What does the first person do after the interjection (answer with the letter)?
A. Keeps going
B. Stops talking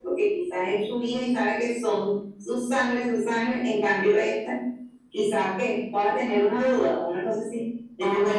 A